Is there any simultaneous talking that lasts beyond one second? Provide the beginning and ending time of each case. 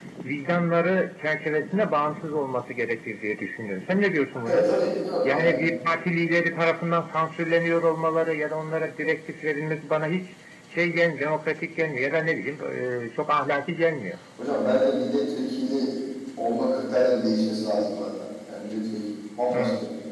none

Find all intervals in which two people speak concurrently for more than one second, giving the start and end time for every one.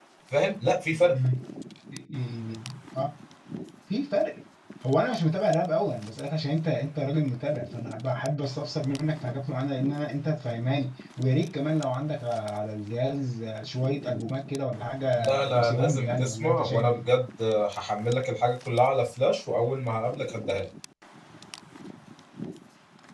15.2-17.1

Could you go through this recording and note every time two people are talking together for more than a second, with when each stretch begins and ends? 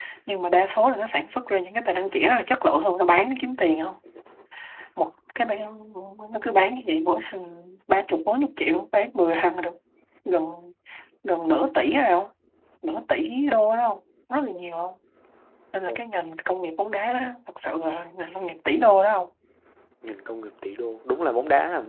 none

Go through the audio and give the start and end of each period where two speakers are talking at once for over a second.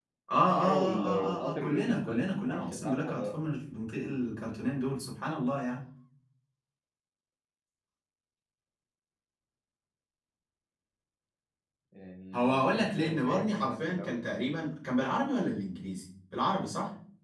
0.5-3.3, 12.3-14.2

